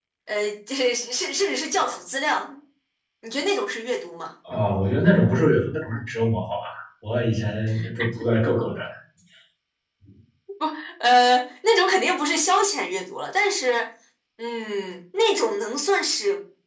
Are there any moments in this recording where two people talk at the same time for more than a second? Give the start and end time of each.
none

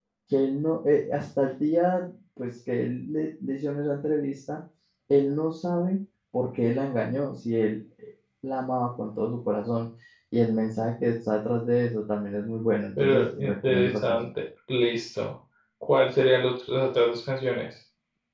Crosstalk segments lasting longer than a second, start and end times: 13.0-14.3

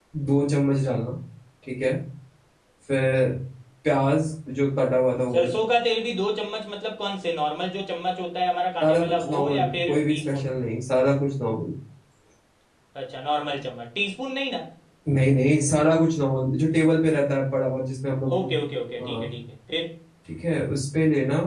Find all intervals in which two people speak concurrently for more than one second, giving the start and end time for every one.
8.8-10.5

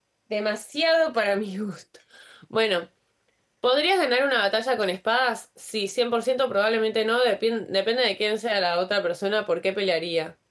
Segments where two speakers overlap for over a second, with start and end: none

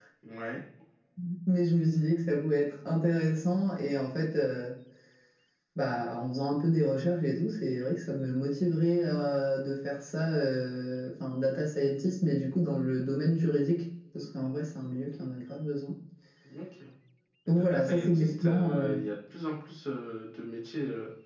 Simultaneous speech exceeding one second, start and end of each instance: 17.5-19.0

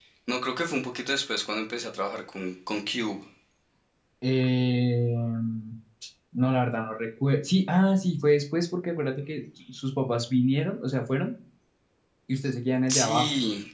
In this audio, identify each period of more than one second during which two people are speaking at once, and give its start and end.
none

